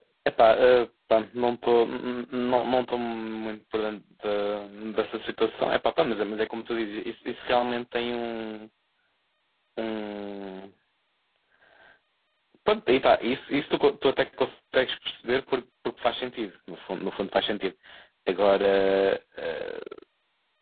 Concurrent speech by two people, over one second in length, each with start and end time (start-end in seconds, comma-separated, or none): none